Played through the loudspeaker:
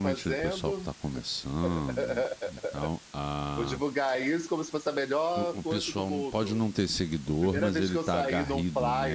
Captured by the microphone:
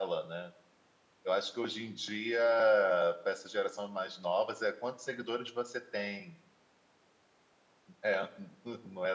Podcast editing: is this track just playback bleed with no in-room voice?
No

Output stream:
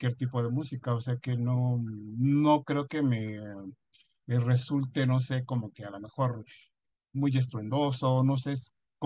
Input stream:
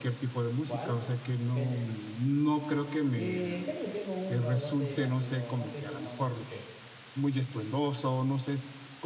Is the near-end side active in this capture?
Yes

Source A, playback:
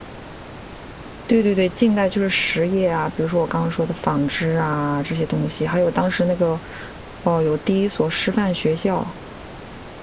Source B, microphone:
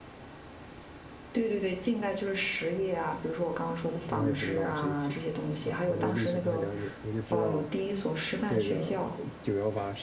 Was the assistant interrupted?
Yes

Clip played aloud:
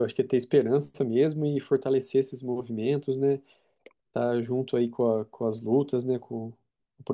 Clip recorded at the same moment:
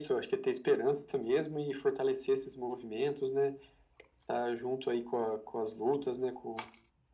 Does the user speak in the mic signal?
No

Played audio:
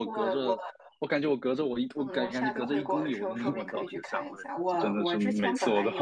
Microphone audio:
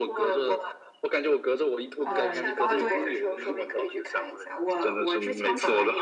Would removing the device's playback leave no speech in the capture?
No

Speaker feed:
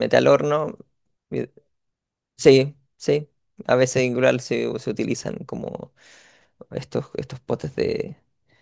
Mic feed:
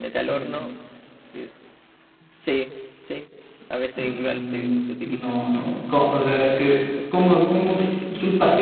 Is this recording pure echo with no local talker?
No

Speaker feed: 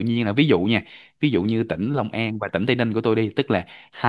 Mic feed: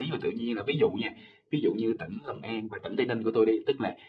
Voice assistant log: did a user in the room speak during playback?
No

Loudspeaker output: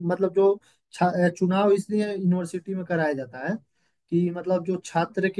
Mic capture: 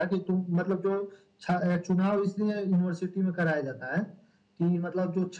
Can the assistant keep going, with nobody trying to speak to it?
Yes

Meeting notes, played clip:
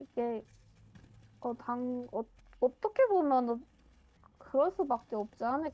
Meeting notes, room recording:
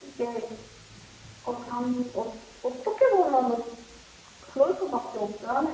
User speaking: No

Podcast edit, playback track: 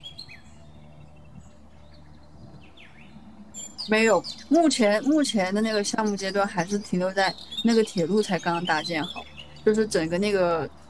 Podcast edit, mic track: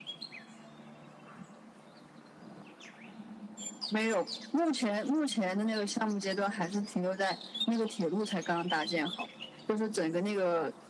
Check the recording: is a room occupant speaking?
No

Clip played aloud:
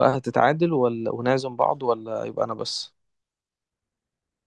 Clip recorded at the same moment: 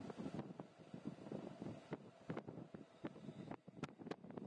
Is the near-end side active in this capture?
No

